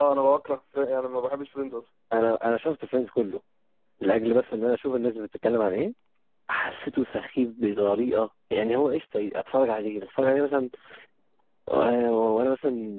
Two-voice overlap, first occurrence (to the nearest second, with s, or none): none